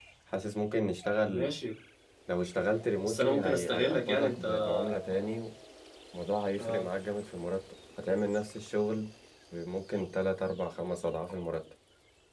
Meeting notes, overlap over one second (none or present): present